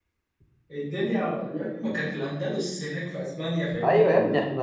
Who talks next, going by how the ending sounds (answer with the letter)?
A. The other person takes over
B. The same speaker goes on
A